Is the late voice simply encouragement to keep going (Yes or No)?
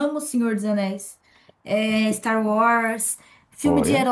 Yes